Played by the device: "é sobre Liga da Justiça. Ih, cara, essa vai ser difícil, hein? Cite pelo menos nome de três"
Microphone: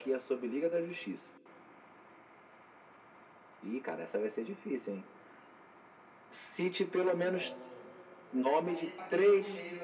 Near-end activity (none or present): present